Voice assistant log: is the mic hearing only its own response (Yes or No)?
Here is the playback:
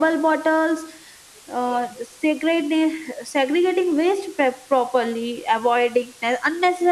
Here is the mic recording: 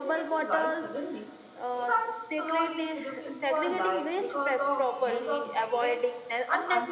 No